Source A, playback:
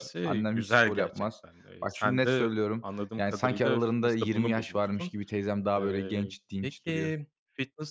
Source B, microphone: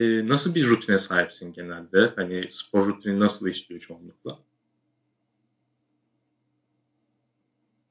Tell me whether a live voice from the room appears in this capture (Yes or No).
Yes